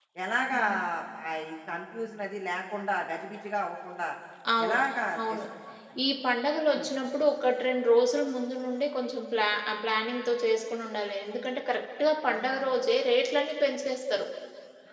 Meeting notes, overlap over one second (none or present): none